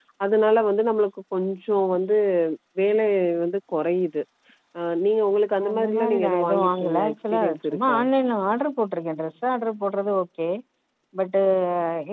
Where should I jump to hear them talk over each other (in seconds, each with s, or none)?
5.6 s